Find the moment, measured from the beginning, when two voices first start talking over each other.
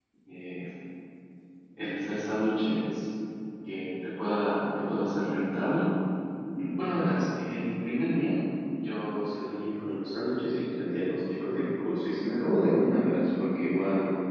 none

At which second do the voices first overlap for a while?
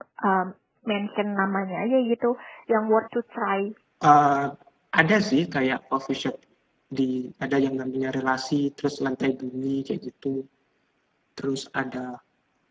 none

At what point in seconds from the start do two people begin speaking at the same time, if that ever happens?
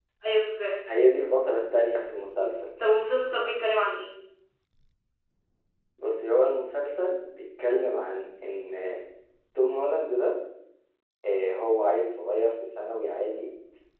none

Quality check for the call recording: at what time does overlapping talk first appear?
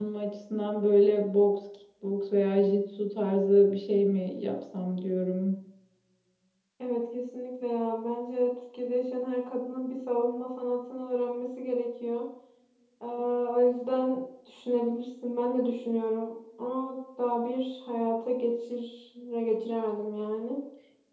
none

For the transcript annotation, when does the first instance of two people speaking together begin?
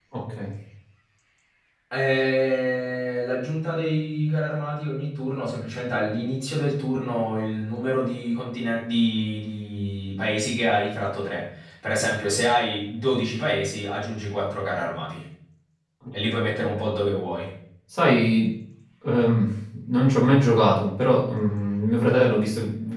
none

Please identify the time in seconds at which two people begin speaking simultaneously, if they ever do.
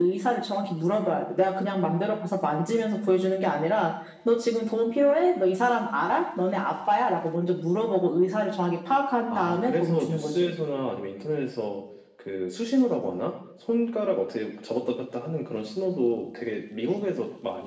9.3 s

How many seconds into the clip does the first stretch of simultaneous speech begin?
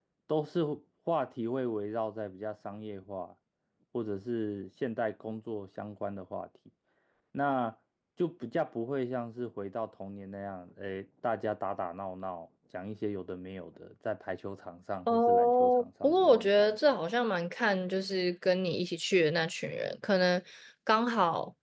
15.1 s

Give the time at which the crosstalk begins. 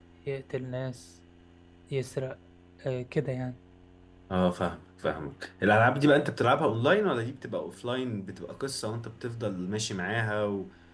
none

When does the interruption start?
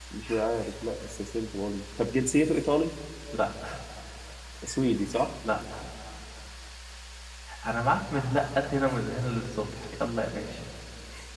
none

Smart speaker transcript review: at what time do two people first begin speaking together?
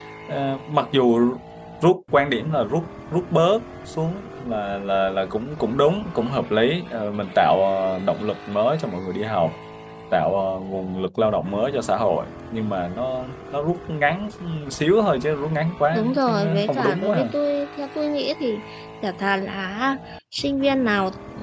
15.9 s

